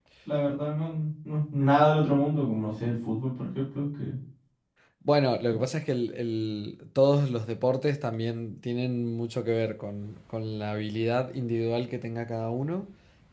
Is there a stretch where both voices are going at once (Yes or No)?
No